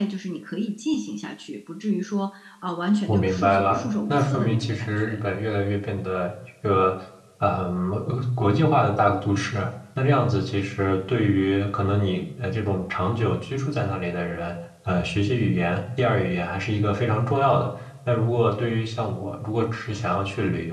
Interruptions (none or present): present